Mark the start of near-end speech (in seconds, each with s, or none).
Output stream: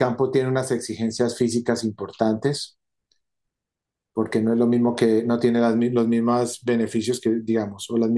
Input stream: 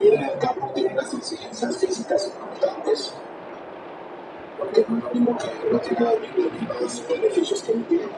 none